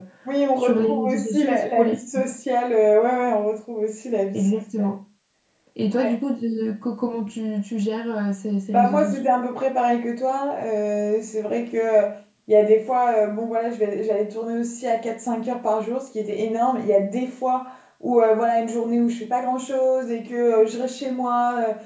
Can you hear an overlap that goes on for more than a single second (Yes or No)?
Yes